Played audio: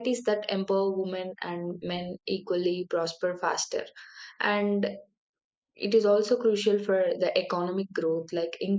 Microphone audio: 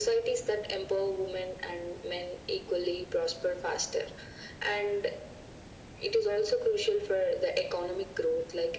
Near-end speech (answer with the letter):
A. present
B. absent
B